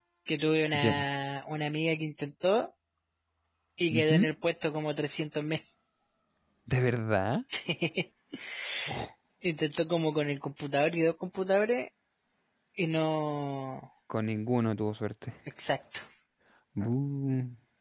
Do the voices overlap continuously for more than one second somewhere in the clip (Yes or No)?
No